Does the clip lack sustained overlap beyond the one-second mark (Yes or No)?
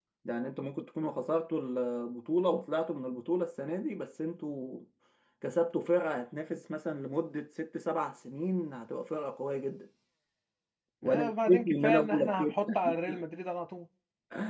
No